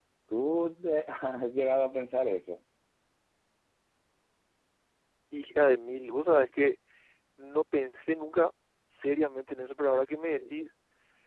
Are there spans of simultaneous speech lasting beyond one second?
No

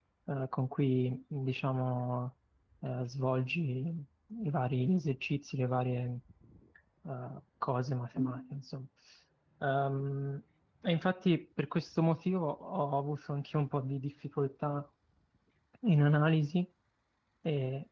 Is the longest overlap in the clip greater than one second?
No

